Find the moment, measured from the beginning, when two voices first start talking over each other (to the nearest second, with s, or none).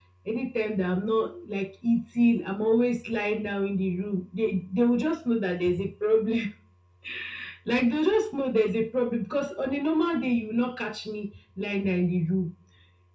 none